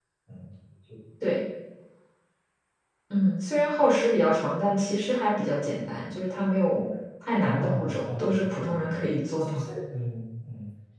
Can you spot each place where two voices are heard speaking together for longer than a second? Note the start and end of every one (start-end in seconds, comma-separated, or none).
7.4-8.9